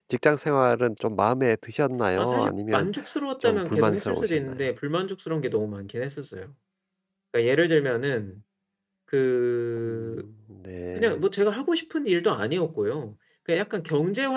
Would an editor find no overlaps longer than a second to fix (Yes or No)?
No